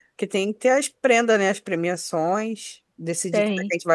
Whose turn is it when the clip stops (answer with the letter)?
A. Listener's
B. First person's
B